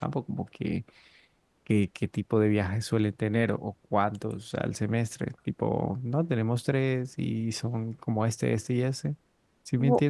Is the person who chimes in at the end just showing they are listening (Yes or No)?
No